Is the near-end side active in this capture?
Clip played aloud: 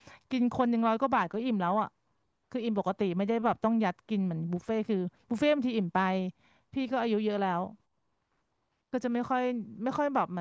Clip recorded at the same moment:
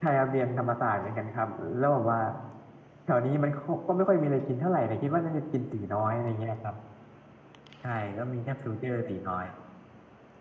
Yes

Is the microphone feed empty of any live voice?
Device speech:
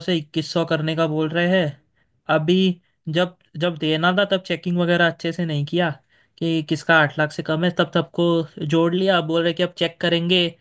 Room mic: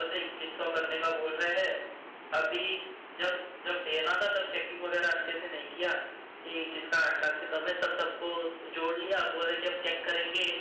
Yes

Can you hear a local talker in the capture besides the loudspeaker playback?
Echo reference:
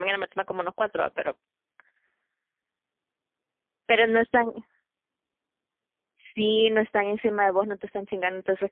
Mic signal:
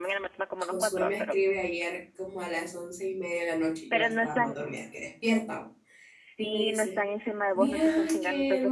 Yes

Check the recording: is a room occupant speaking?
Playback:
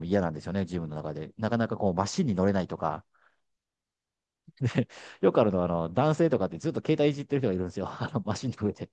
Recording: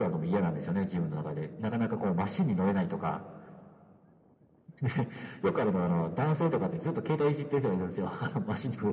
No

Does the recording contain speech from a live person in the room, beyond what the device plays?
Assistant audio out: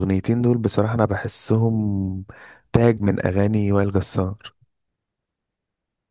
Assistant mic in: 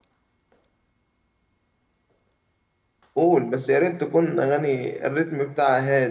Yes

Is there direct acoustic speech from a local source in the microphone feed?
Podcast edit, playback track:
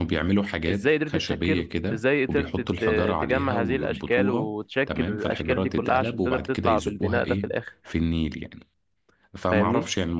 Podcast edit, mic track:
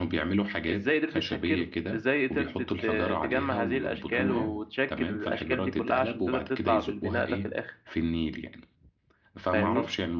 Yes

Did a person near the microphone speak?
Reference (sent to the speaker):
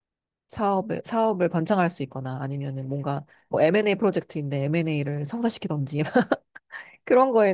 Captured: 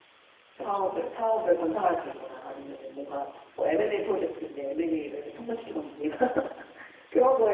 Yes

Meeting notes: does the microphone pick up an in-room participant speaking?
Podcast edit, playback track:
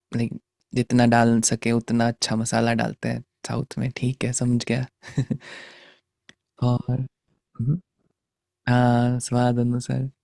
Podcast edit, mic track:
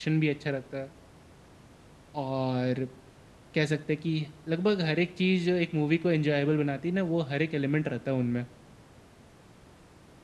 Yes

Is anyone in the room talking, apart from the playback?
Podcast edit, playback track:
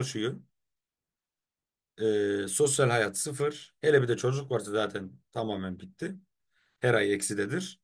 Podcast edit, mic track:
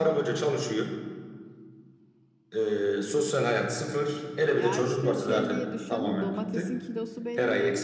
Yes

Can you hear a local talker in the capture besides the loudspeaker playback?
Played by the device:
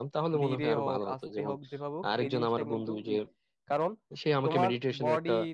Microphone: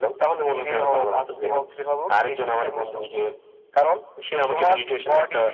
No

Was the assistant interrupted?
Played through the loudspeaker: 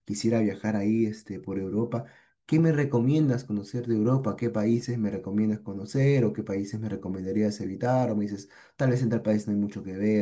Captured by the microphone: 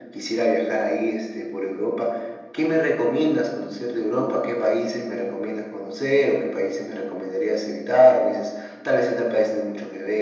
No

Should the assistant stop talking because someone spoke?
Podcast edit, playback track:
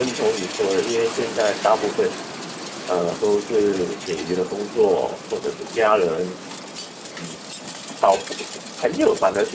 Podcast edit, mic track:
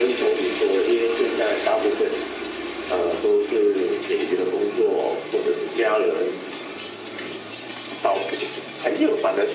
No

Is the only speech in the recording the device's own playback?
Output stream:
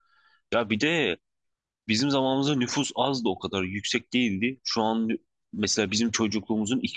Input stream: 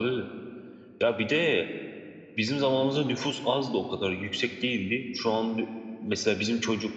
Yes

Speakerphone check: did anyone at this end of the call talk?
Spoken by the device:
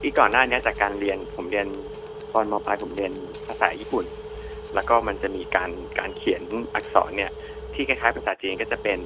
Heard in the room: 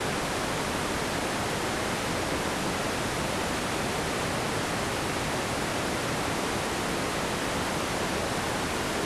No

